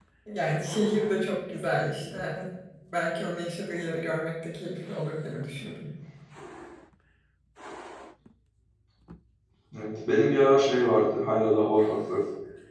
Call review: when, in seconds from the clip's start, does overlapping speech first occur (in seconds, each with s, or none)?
none